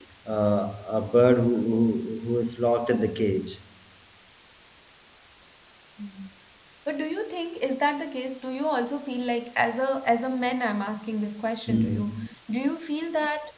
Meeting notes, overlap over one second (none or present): none